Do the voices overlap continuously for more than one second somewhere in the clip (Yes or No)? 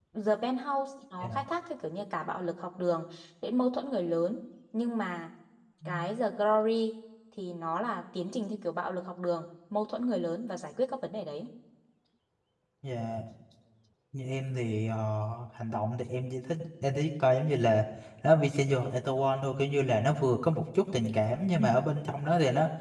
No